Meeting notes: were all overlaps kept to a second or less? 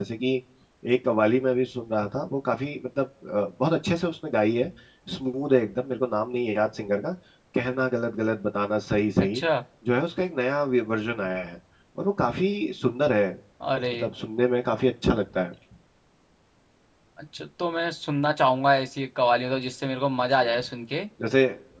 Yes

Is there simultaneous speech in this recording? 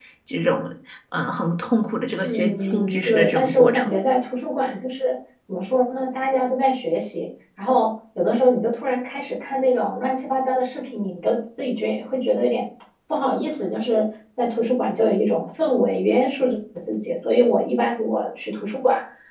Yes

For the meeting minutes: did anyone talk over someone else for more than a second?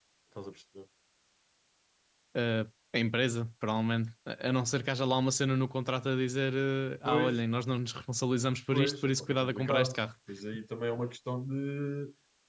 Yes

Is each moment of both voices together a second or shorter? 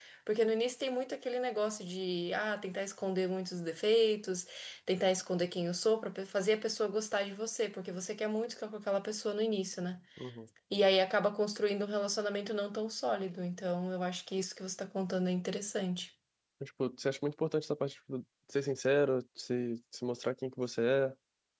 Yes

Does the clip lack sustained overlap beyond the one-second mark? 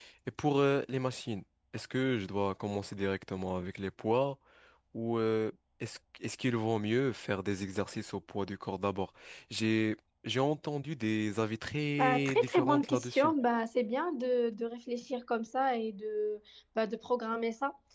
No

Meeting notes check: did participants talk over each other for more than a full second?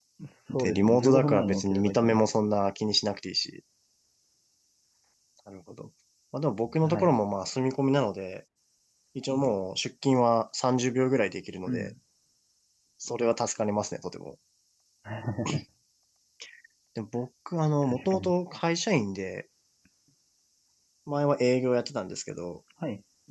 Yes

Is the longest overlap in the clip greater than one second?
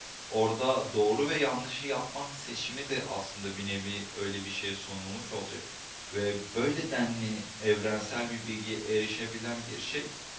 No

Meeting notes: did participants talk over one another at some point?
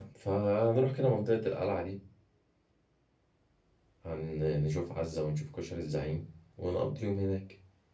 No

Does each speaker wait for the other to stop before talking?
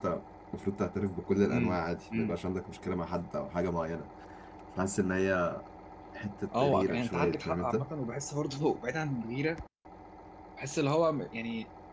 No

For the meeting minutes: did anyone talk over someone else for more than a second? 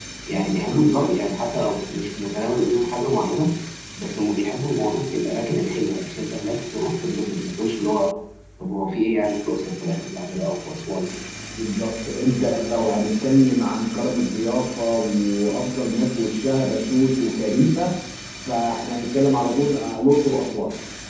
No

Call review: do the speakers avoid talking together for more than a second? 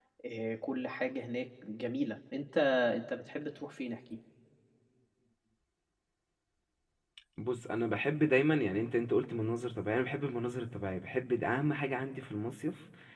Yes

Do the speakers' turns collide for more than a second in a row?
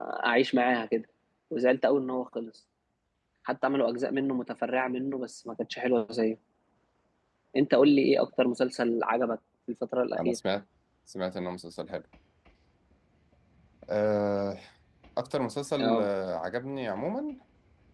No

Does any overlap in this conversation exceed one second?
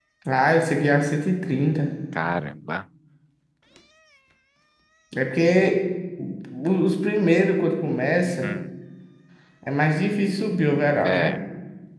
No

